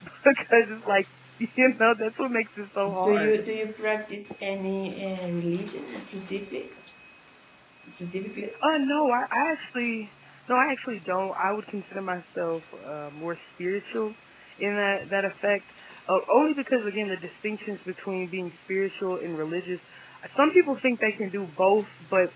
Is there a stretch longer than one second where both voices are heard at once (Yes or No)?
No